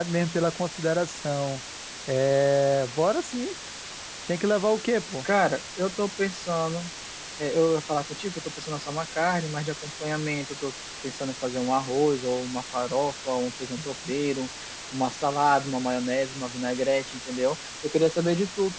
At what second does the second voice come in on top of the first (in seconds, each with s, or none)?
none